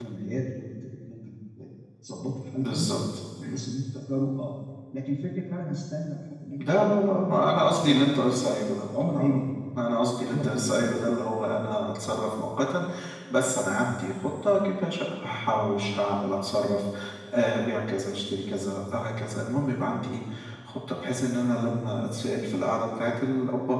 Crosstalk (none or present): present